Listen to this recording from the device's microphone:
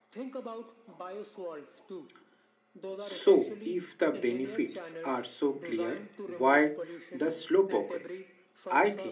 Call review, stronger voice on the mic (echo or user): user